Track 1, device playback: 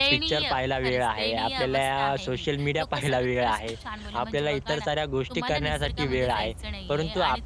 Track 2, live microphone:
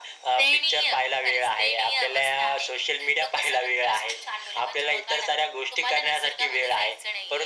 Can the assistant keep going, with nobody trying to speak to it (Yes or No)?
Yes